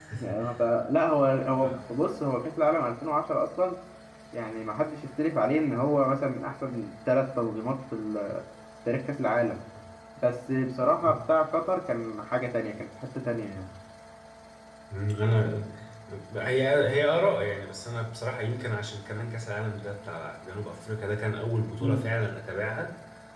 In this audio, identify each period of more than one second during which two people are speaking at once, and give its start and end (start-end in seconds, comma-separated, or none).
none